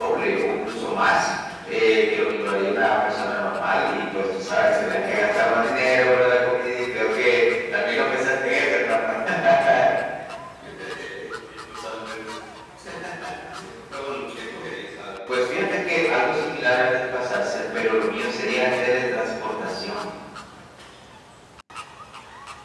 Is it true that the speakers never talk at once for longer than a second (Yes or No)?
Yes